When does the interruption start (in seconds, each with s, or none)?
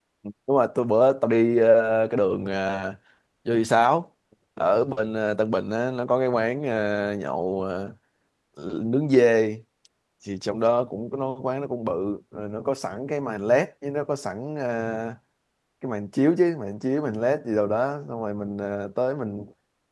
none